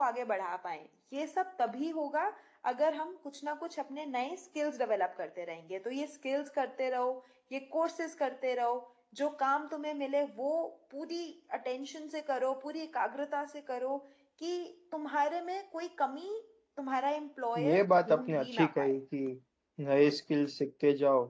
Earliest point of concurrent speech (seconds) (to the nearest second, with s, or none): 18 s